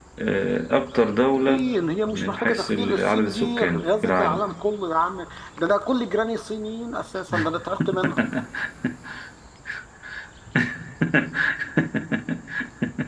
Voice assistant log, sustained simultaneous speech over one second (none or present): present